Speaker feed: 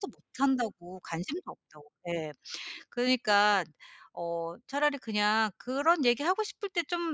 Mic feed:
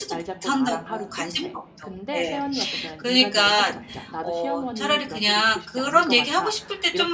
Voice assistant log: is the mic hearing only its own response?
No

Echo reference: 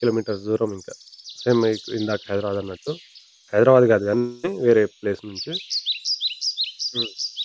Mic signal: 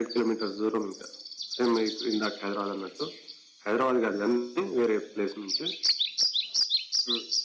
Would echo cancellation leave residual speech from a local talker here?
No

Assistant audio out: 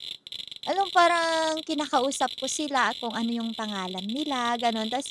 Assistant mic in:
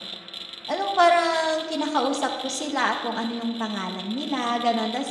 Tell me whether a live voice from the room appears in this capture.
No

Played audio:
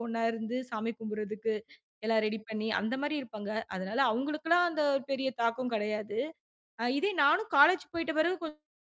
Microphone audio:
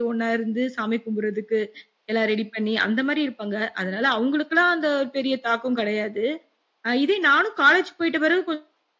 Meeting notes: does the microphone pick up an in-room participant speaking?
No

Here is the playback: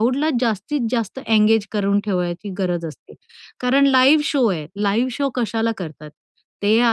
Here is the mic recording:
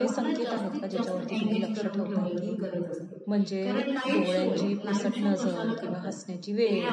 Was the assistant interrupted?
Yes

